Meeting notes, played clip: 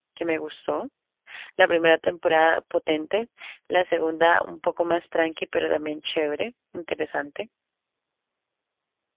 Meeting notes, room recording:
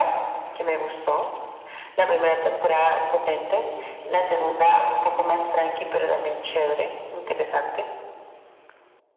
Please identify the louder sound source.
echo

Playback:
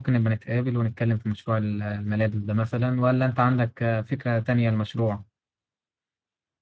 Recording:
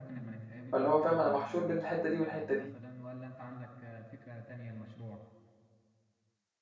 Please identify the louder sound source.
user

